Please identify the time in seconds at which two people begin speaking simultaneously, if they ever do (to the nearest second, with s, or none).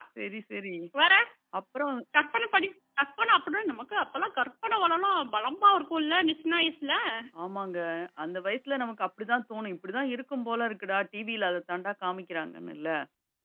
none